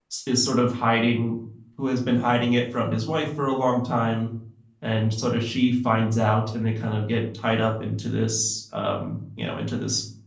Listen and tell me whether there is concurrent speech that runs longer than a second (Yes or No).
No